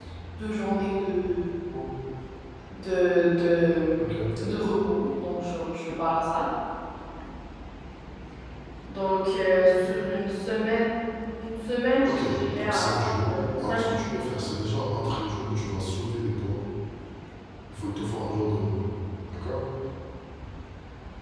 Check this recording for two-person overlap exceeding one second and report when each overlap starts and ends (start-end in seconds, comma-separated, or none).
12.1-14.5